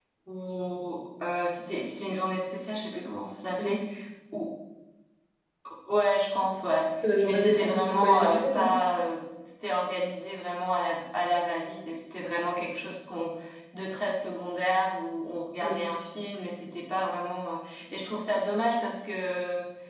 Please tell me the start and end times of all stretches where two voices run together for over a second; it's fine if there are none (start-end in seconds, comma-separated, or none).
7.2-8.7